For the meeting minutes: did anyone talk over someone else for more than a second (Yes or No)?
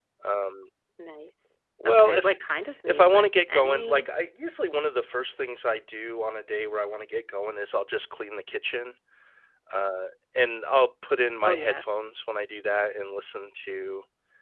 Yes